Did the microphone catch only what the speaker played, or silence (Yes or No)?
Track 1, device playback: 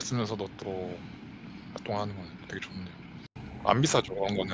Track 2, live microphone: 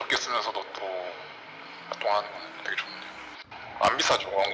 Yes